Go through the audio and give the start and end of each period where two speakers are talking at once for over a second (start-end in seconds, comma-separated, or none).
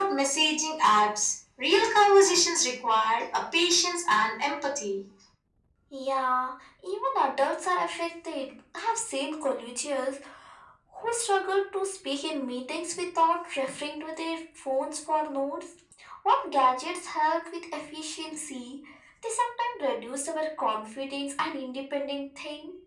none